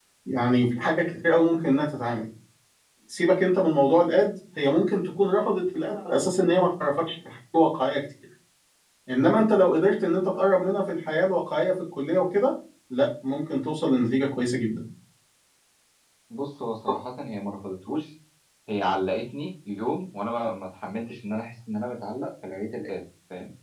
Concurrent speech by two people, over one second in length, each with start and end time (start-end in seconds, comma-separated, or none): none